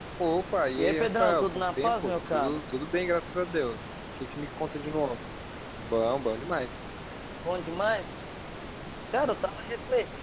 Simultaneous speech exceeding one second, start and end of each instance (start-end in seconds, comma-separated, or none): 0.8-2.6